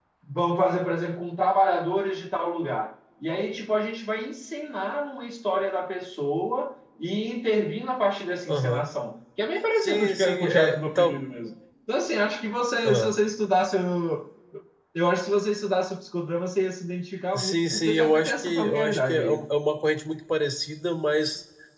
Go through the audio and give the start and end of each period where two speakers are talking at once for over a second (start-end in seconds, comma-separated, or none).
9.8-11.2, 17.4-19.4